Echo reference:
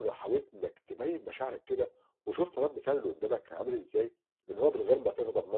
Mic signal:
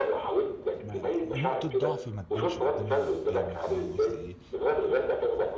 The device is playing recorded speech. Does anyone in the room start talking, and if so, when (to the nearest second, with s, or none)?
1 s